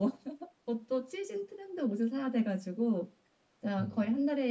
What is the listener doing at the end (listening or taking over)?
listening